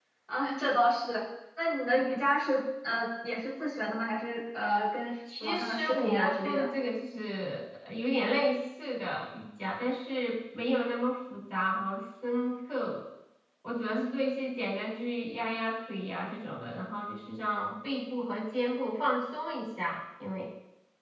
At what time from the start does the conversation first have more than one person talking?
5.3 s

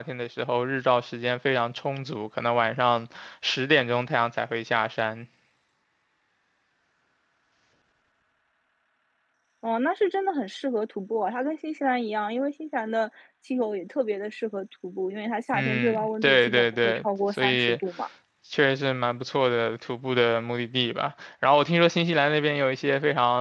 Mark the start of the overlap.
15.5 s

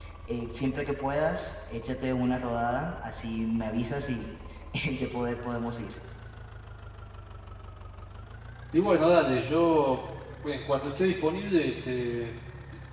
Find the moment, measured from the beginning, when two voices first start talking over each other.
none

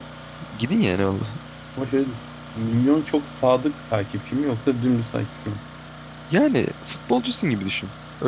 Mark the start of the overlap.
none

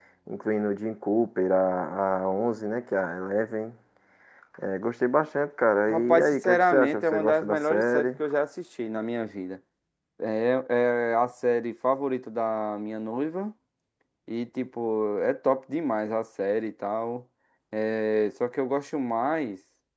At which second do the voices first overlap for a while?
5.9 s

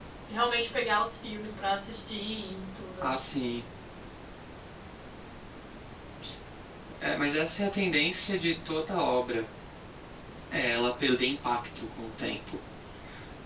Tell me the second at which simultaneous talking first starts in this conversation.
none

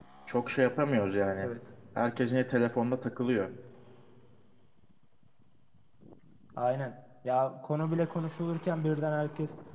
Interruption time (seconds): none

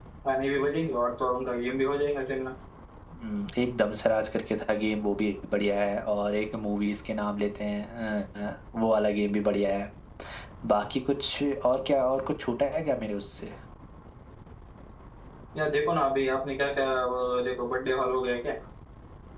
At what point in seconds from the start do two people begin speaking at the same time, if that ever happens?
none

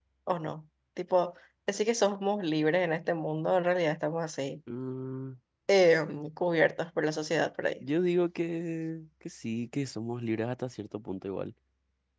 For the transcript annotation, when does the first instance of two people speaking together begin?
none

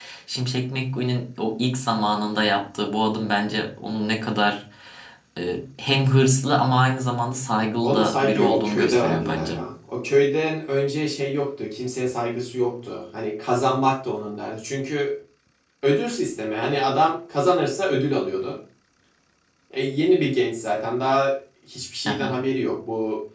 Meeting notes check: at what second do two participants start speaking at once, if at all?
7.8 s

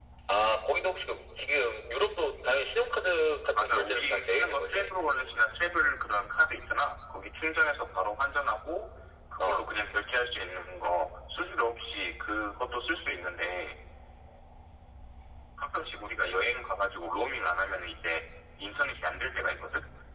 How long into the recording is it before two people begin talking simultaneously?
3.5 s

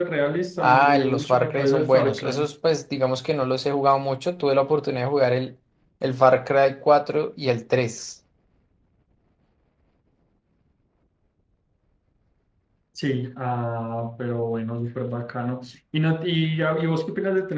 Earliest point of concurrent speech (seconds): 0.6 s

